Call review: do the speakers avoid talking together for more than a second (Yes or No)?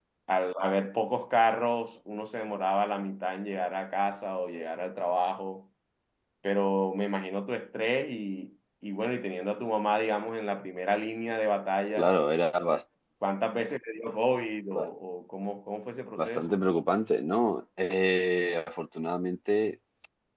Yes